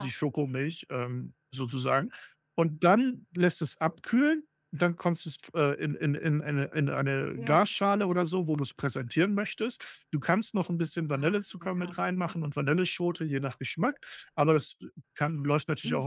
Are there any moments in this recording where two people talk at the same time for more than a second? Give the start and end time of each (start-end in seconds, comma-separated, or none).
11.1-12.3